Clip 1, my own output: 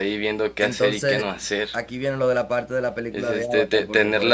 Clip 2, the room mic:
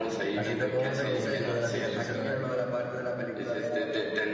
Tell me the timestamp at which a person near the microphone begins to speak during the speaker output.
0.3 s

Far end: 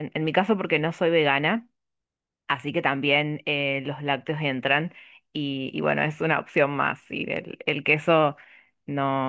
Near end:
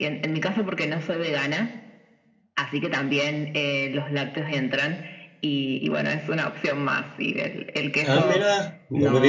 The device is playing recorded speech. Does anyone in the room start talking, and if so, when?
8.0 s

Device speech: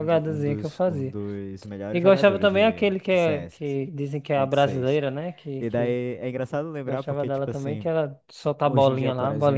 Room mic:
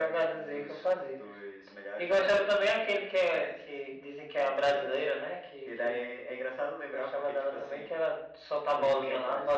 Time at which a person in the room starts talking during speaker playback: none

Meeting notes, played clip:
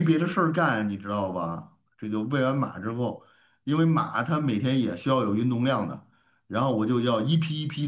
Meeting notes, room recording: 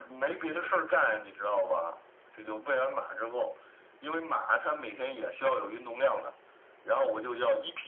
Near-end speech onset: none

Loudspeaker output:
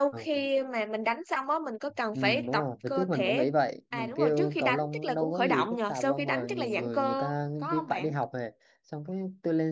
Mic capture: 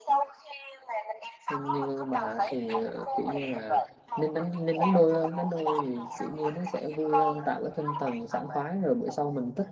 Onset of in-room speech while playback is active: 1.5 s

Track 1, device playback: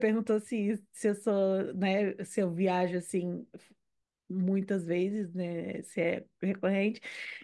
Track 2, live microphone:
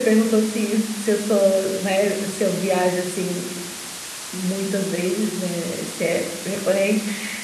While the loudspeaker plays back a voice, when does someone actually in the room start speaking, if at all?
none

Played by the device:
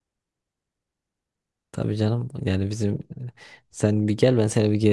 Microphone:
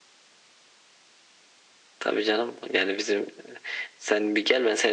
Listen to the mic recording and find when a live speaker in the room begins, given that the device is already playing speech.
none

